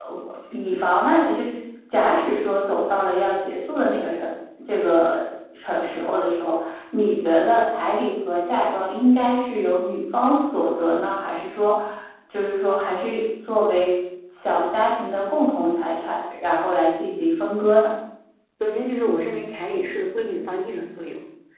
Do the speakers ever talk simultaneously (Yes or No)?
No